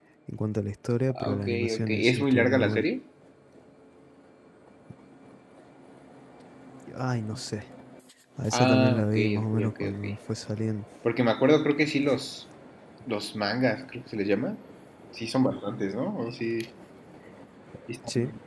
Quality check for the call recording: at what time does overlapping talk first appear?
1.1 s

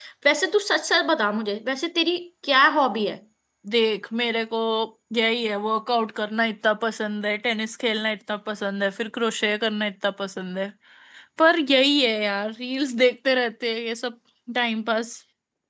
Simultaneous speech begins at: none

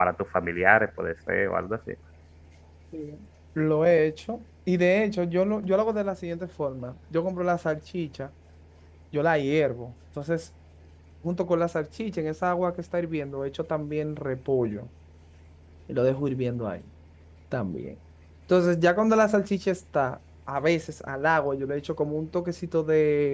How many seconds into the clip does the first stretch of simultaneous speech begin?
none

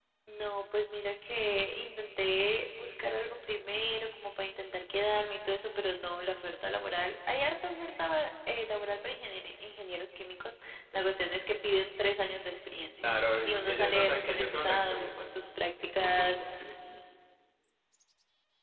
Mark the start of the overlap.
13.0 s

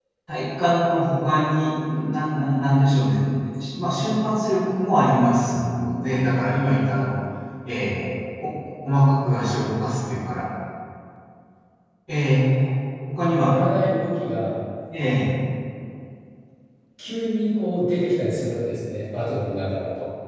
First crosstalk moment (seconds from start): none

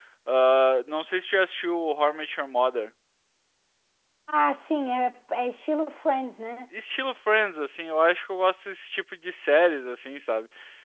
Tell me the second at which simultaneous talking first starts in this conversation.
none

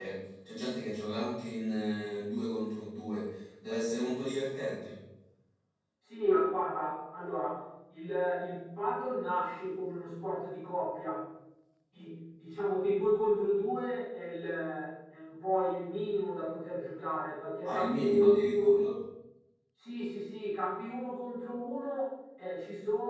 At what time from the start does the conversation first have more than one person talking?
17.6 s

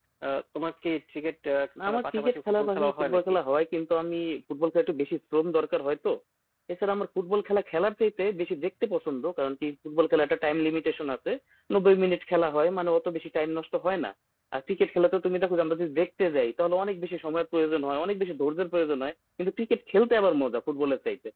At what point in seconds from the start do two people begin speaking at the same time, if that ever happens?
1.9 s

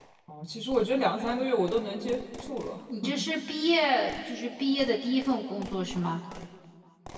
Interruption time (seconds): none

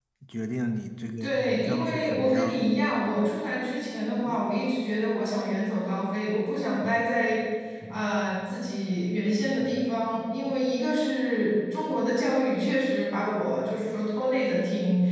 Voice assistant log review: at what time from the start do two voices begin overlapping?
1.2 s

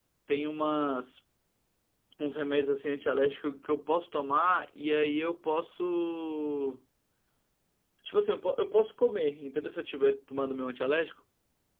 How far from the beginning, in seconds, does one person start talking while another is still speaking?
none

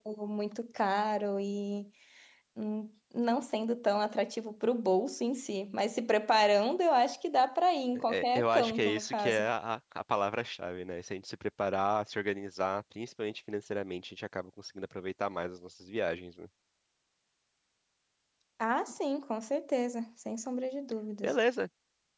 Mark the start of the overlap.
8.0 s

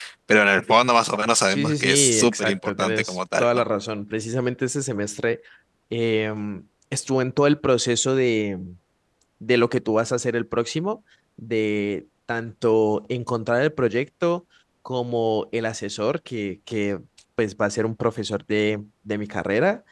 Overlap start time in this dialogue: 1.5 s

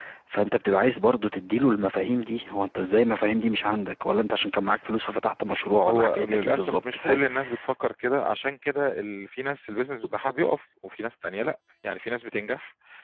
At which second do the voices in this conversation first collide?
5.8 s

